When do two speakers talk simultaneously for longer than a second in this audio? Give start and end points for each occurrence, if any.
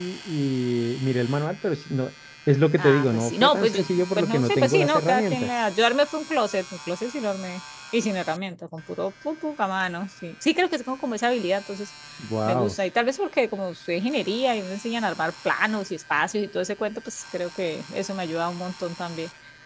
2.8-5.5

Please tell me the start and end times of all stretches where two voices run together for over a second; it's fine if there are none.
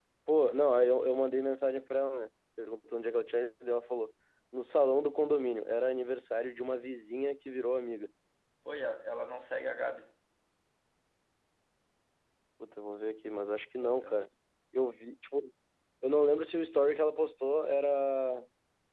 none

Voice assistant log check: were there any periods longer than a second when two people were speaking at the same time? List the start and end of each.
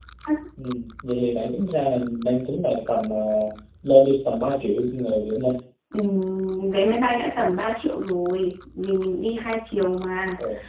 none

